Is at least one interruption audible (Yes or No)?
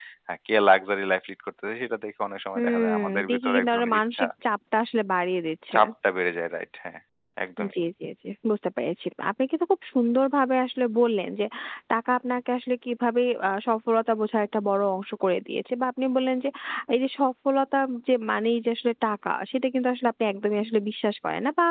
Yes